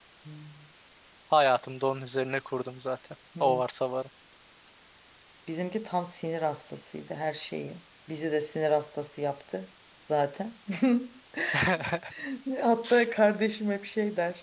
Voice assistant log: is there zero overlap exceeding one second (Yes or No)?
Yes